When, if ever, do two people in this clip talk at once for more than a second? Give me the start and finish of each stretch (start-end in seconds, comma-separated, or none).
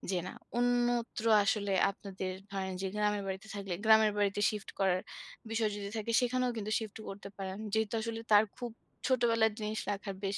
none